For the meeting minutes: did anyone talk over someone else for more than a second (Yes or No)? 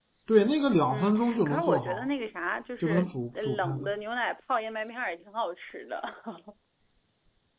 Yes